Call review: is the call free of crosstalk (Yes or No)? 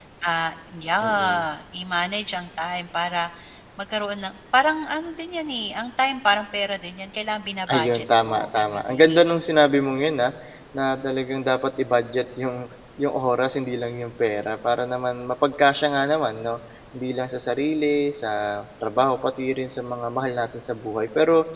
No